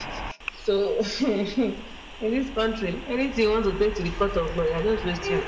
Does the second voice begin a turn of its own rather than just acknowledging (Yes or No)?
Yes